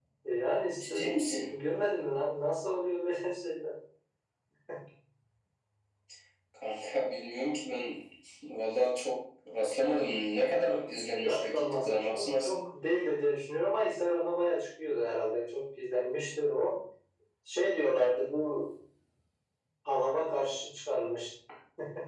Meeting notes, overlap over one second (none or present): present